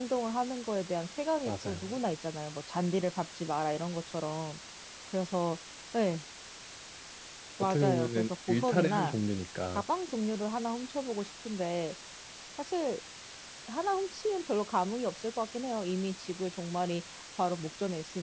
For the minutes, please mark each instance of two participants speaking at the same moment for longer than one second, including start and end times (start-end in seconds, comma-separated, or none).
7.6-9.1